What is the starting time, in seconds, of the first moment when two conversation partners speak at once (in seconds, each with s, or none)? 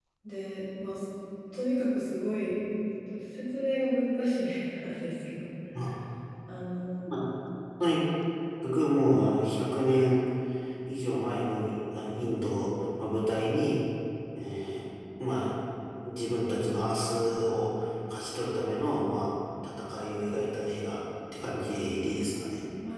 none